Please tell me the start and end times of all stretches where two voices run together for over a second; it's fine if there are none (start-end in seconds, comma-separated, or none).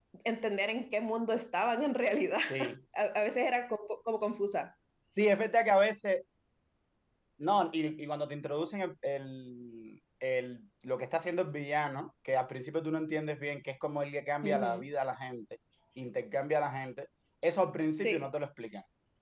none